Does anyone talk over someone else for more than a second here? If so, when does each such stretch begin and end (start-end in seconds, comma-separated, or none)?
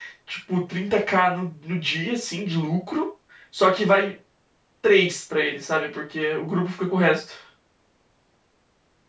none